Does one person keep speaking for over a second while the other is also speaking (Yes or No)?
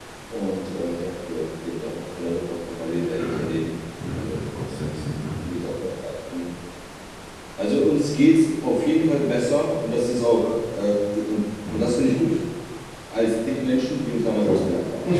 No